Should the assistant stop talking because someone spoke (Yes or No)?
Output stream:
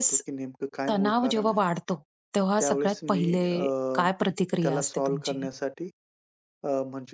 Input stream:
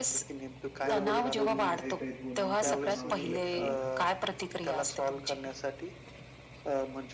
Yes